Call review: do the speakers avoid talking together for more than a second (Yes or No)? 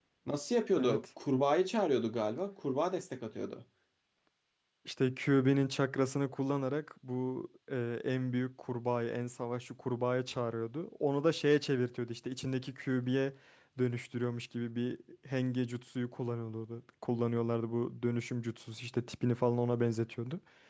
Yes